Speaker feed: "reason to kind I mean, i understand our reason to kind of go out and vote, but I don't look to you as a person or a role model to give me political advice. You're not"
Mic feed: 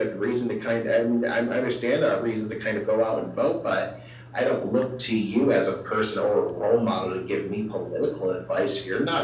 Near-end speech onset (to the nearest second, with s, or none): none